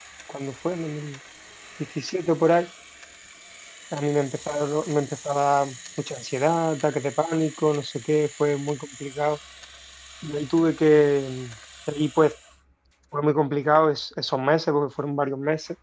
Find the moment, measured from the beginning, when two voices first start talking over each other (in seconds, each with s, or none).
none